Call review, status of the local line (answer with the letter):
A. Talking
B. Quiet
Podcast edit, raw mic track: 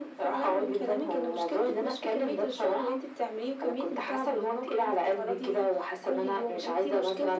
B